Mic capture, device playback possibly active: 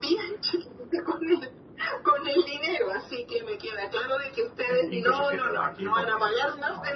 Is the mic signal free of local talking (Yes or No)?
No